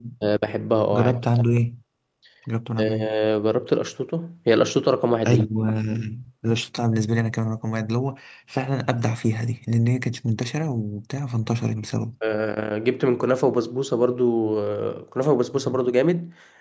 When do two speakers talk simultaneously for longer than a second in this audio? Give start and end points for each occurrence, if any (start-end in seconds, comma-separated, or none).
none